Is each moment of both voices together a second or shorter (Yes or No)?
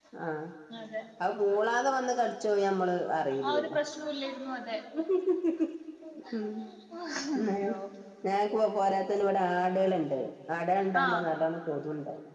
Yes